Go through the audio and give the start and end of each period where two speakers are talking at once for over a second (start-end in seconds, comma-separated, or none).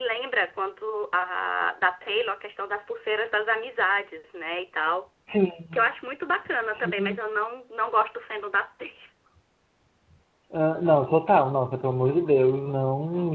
none